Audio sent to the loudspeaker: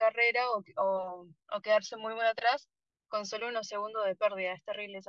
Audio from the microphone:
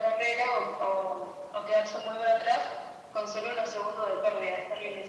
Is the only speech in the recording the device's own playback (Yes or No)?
Yes